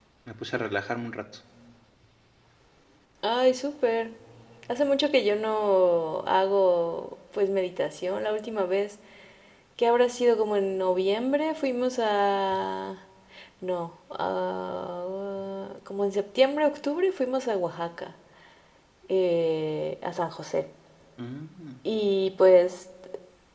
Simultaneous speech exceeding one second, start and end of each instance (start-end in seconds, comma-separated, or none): none